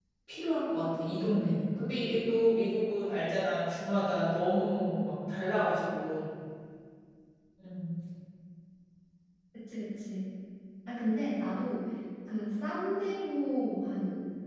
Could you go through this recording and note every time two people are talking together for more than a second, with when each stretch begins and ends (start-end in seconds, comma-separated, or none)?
none